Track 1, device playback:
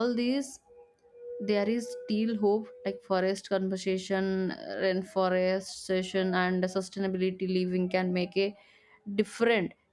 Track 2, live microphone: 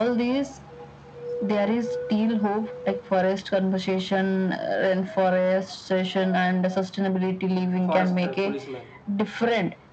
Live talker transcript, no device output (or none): forest uh, policemen